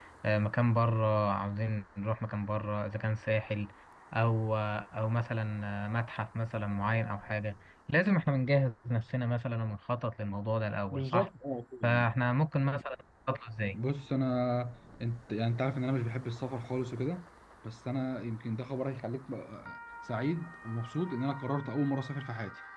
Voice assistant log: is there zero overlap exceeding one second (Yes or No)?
Yes